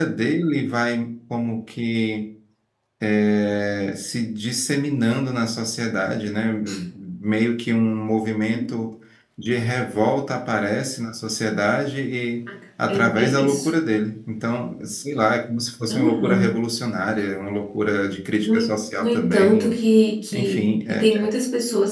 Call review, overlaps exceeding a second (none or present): present